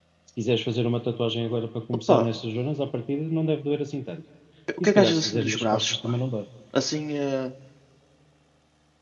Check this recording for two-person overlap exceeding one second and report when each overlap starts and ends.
4.8-6.2

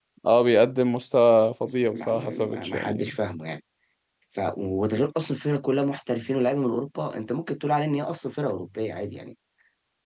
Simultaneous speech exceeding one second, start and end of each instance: 1.9-3.2

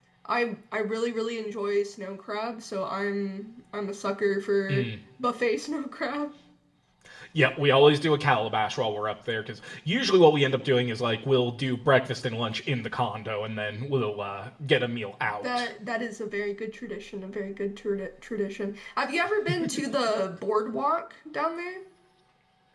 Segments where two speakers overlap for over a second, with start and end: none

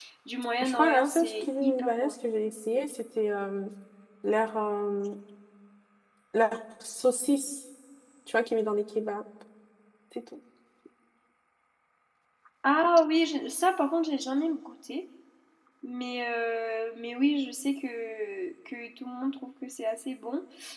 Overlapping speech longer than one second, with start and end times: 0.6-2.1

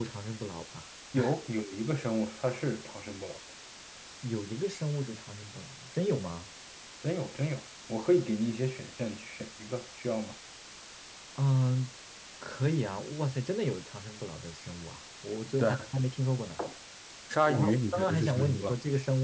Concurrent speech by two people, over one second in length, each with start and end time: 17.5-18.7

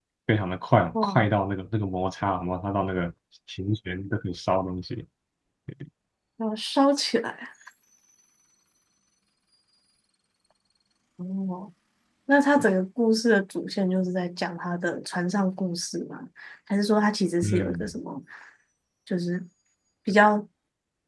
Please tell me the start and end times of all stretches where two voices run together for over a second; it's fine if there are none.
none

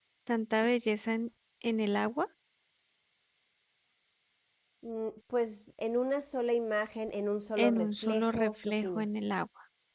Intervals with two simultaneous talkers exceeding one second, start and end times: 7.6-9.1

